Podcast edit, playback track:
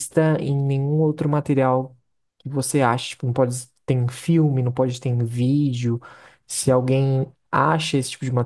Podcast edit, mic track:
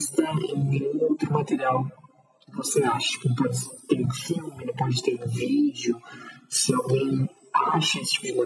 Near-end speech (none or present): none